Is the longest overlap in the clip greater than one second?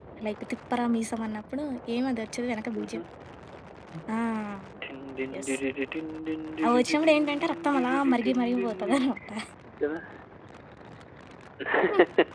Yes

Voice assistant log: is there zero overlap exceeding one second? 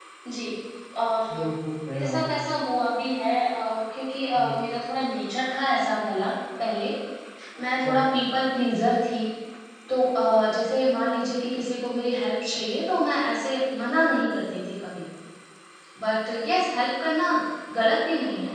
Yes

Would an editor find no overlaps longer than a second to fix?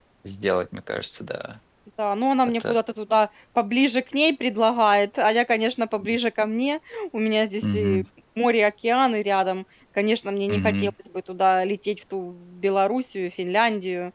Yes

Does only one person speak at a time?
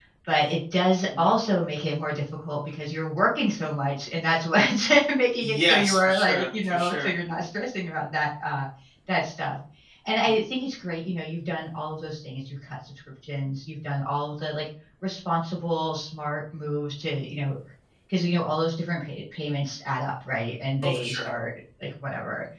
No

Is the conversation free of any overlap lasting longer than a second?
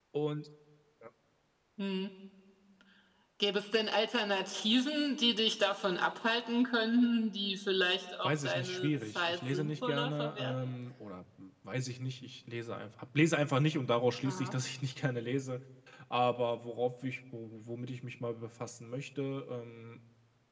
No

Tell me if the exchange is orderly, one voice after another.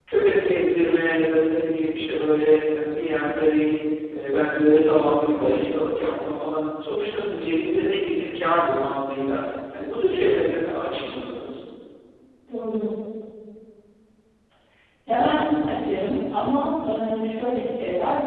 Yes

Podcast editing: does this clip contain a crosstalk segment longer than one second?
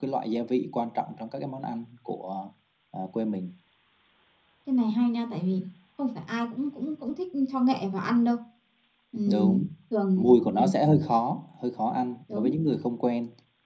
No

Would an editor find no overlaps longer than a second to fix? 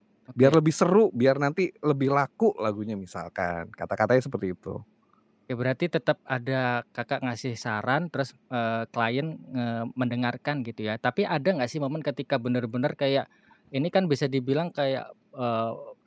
Yes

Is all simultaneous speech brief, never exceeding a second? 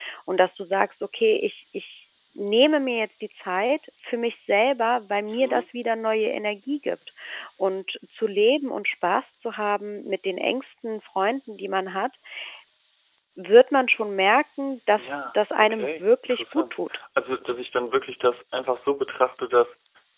No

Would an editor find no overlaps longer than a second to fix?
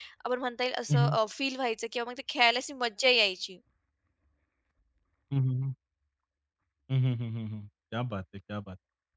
Yes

